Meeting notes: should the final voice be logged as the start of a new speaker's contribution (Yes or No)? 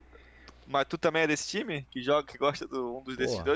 Yes